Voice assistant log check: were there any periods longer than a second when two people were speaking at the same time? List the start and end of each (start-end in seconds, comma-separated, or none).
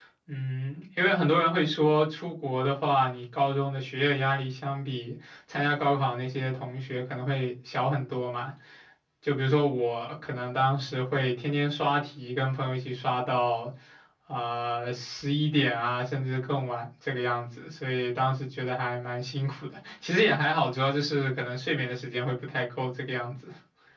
none